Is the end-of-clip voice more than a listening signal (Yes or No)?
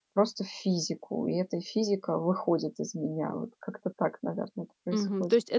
Yes